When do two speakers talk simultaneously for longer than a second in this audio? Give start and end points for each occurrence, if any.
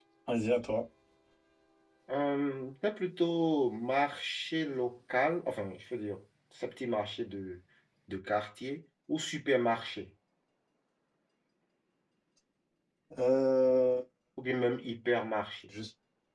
none

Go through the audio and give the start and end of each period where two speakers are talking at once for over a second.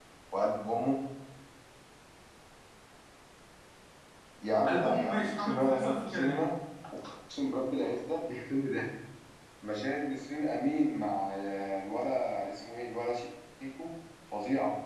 4.7-6.4

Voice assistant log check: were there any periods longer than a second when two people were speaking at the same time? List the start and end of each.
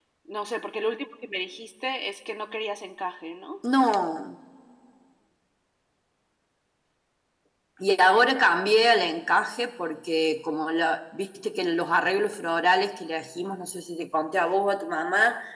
none

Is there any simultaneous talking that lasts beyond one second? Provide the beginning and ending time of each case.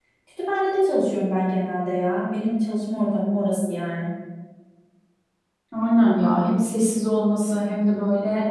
none

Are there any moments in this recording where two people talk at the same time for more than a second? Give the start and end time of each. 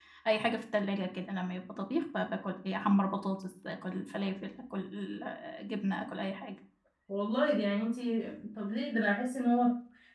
none

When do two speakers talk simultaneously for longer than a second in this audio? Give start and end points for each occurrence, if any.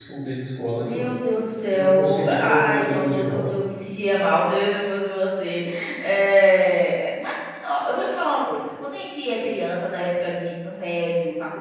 1.7-3.5

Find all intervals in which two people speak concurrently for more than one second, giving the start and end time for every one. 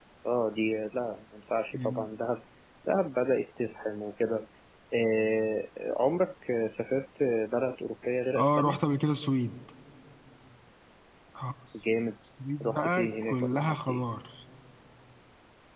12.6-14.0

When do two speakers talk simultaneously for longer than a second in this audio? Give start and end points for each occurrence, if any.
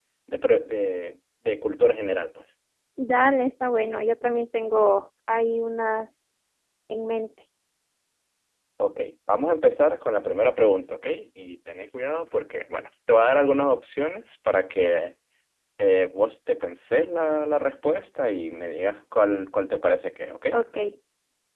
none

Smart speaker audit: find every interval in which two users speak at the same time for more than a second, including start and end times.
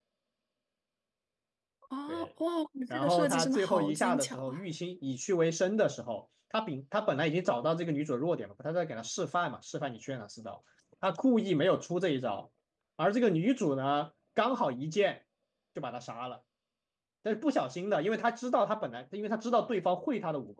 2.9-4.6

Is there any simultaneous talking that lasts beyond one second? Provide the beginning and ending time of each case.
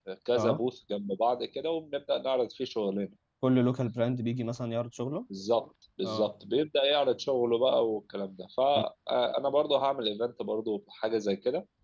none

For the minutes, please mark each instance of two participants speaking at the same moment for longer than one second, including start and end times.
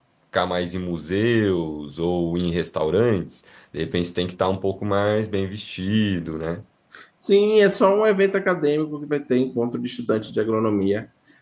none

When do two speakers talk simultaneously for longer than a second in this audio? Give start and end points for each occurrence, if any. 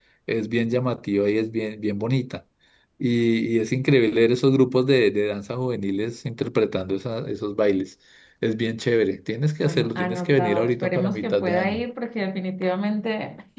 9.7-11.8

